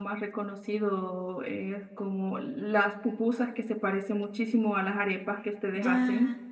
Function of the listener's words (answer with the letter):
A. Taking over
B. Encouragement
A